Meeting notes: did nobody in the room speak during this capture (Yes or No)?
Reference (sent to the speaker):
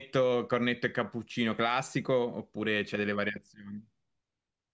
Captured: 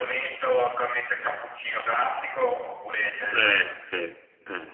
No